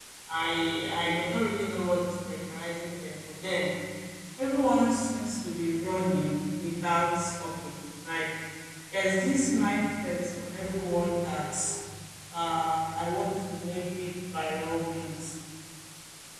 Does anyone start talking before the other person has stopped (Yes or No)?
No